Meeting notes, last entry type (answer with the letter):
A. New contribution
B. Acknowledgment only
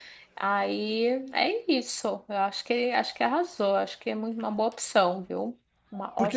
A